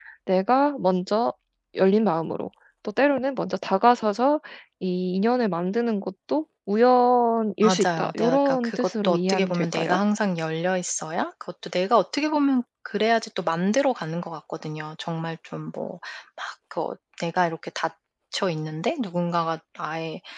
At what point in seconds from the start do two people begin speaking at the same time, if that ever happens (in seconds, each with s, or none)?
7.6 s